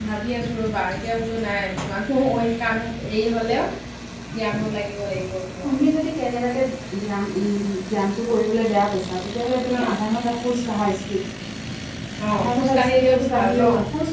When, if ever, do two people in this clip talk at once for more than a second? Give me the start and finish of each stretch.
12.3-13.6

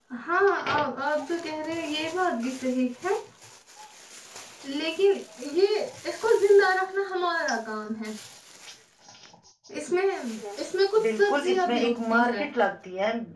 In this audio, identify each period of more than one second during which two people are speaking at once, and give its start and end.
11.2-12.4

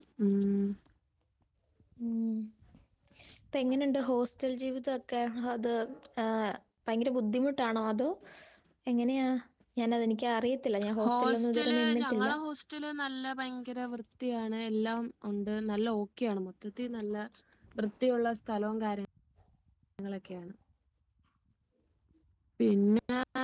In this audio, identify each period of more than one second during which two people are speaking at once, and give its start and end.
11.0-12.3

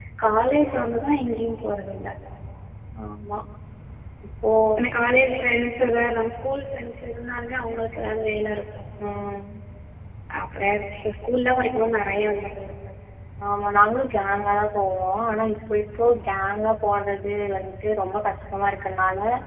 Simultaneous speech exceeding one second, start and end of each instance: none

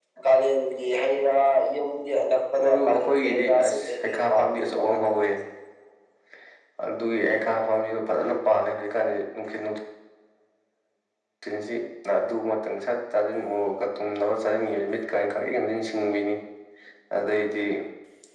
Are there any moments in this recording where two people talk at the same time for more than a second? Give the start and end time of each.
2.6-5.3

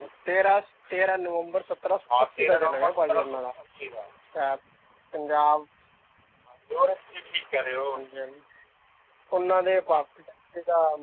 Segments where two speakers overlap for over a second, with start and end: 2.2-3.4

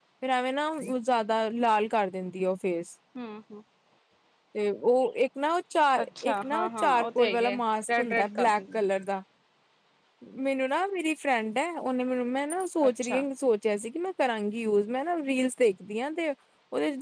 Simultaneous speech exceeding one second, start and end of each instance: 6.0-8.8

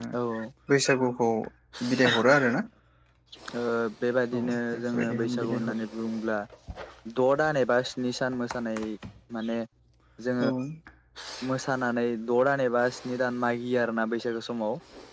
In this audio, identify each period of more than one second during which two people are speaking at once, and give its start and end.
4.4-5.7

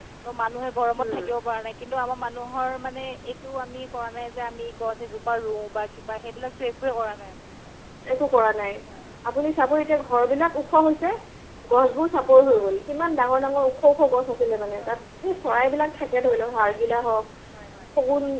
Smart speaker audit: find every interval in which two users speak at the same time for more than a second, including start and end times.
none

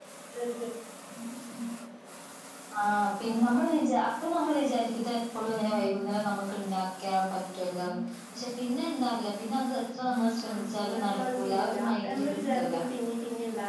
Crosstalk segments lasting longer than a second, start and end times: 10.4-12.7

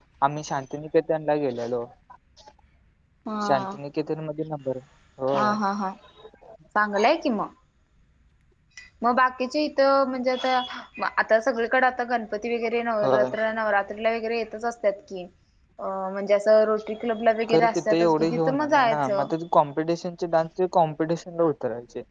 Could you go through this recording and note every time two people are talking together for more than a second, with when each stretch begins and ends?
17.5-19.3

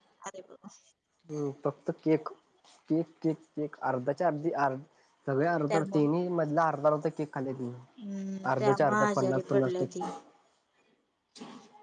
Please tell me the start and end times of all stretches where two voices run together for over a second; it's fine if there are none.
8.6-9.9

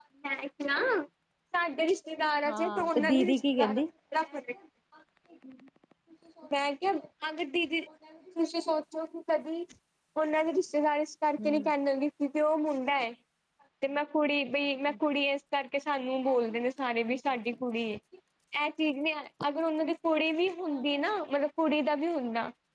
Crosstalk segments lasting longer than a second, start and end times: 2.5-3.8

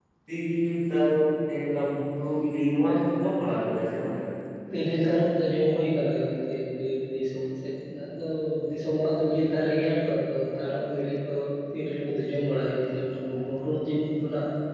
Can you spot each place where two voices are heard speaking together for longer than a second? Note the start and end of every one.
none

